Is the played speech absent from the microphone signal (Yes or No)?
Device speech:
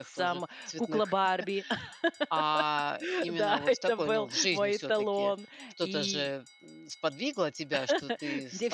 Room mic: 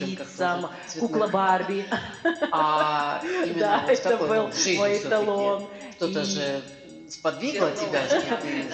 No